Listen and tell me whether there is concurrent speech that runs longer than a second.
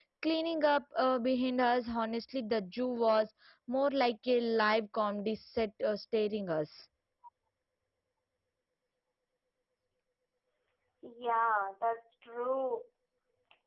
No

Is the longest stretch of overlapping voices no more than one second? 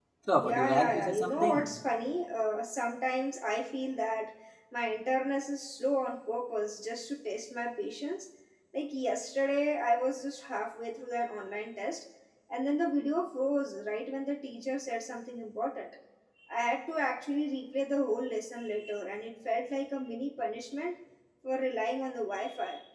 No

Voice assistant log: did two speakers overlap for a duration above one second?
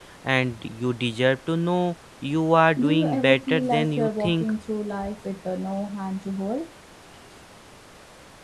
Yes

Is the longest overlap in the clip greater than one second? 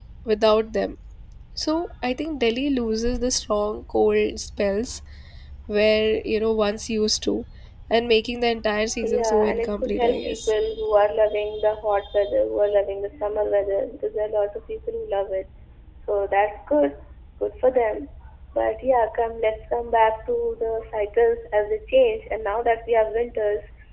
Yes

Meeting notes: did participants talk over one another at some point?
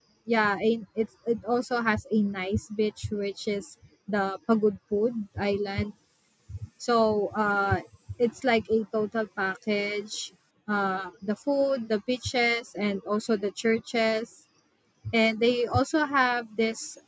No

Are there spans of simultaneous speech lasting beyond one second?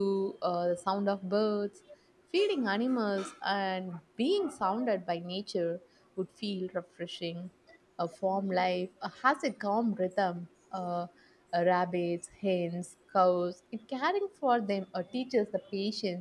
No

